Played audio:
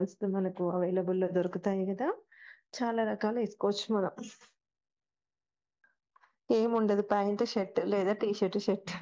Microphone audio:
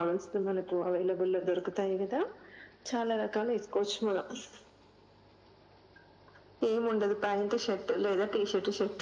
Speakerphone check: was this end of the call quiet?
Yes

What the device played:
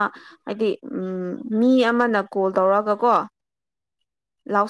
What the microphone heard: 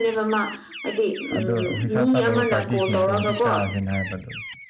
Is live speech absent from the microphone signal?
No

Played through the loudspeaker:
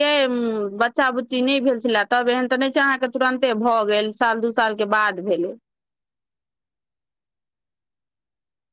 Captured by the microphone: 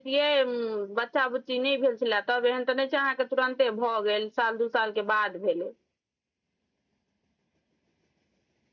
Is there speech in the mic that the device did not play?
No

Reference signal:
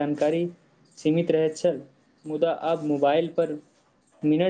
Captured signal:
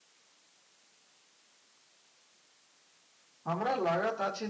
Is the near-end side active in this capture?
Yes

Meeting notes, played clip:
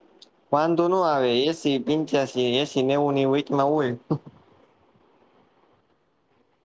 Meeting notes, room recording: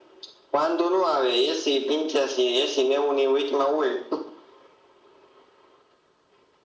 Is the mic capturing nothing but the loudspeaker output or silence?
Yes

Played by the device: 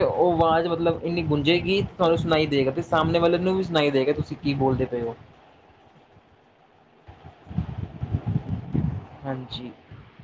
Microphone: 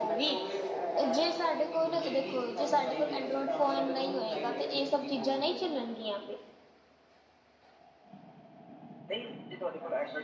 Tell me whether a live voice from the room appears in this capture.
Yes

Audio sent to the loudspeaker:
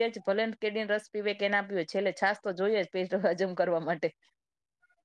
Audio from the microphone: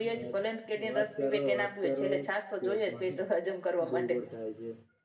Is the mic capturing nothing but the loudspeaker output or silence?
No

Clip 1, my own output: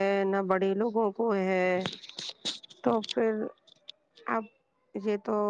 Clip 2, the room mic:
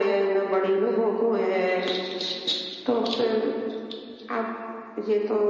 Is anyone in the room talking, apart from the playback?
No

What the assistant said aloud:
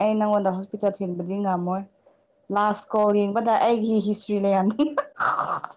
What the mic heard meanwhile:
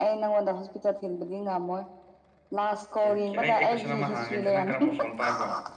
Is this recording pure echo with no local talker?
No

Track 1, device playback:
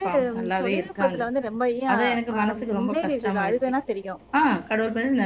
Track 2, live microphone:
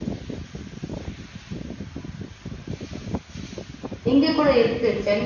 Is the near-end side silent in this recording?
No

